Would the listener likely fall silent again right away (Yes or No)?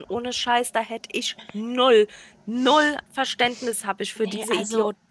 No